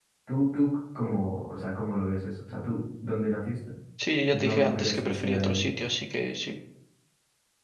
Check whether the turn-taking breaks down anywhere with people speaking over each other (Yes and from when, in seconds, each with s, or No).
Yes, from 4.3 s